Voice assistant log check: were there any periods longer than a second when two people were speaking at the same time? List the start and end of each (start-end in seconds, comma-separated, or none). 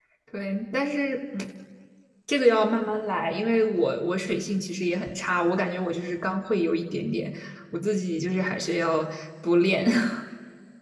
none